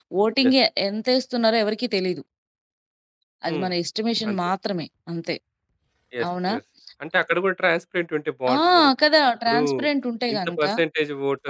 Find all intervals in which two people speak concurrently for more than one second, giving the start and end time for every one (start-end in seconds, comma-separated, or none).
none